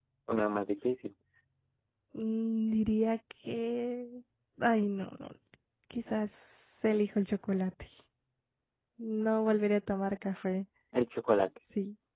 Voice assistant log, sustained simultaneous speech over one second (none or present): none